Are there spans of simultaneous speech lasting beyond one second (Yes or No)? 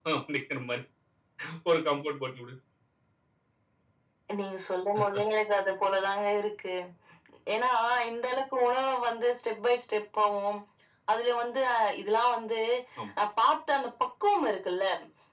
No